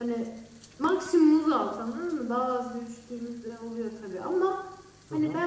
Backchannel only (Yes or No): Yes